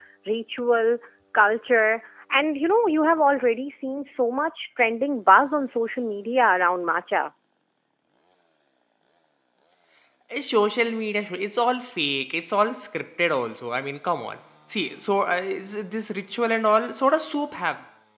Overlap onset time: none

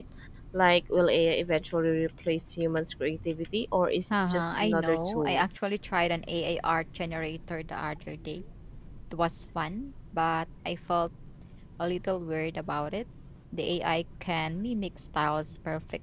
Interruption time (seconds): 4 s

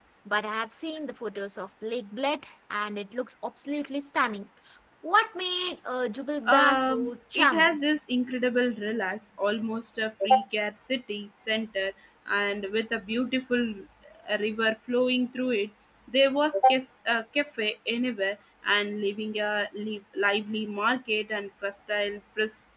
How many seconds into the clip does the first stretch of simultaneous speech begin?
6 s

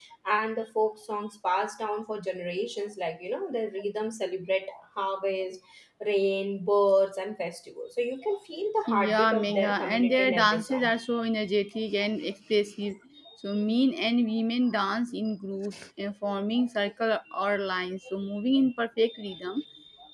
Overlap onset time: 9 s

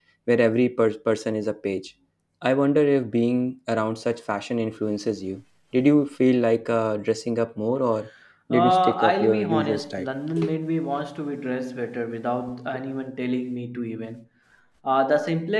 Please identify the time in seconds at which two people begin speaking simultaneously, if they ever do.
9 s

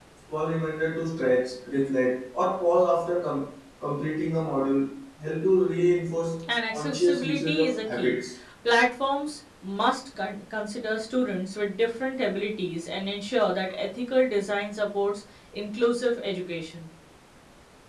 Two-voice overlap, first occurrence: 7 s

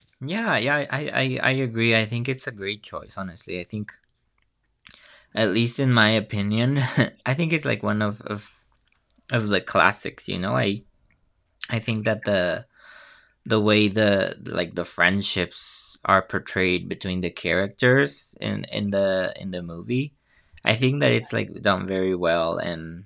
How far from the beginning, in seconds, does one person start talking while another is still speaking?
none

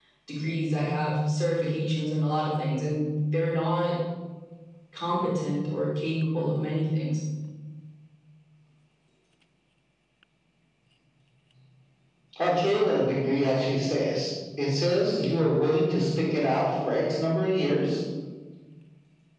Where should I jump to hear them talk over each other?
none

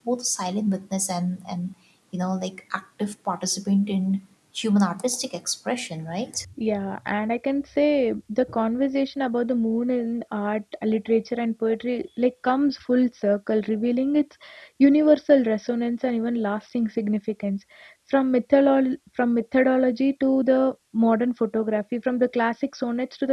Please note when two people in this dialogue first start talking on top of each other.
none

